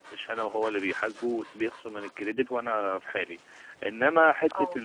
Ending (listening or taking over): listening